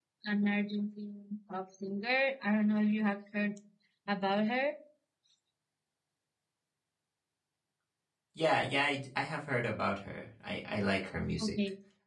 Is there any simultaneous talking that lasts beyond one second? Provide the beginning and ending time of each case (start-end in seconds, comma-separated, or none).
none